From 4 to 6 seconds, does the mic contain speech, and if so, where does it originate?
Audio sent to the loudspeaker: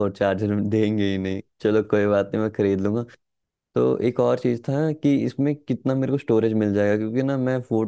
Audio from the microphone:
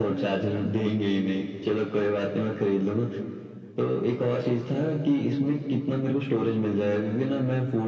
echo only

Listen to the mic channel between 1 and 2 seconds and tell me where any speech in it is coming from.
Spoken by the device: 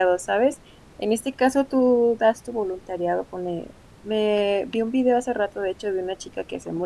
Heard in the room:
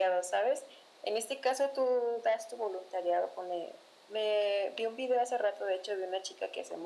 echo only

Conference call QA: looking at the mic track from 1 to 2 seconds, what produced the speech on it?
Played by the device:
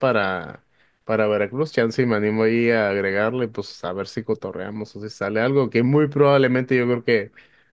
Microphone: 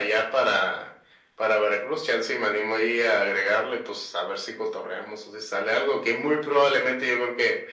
echo only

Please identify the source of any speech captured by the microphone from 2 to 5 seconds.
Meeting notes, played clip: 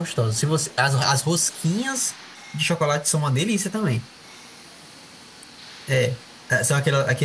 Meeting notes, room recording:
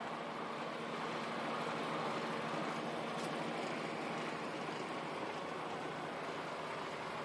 neither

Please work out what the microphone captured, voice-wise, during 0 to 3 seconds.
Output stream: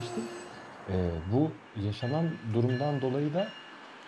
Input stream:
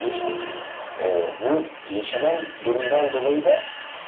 echo only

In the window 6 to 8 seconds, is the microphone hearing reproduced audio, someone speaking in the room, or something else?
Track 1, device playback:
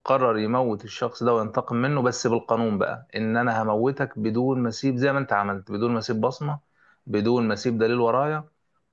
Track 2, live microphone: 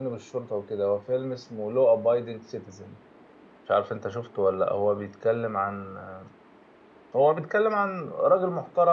user only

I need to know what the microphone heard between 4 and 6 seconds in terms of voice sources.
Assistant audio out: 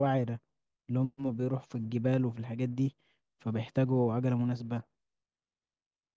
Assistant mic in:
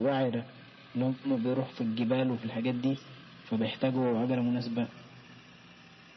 echo only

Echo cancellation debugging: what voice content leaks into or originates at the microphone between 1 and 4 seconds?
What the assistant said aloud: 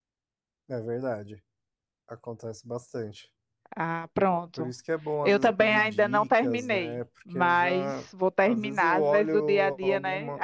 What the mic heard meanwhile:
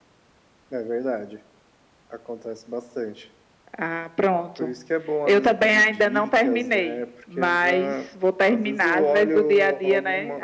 echo only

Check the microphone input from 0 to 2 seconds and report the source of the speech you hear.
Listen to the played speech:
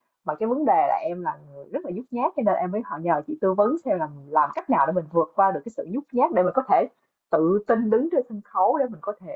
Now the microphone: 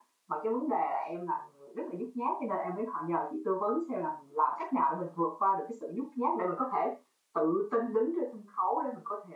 echo only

